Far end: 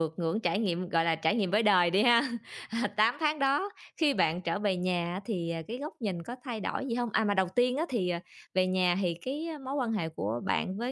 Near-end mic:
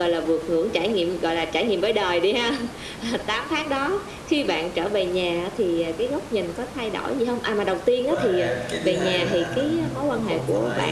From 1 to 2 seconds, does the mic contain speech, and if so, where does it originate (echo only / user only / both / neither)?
echo only